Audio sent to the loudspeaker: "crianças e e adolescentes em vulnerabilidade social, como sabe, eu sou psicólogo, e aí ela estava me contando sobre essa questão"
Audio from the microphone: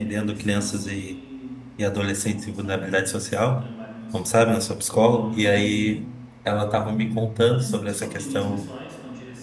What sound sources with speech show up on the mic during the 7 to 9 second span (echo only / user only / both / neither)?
both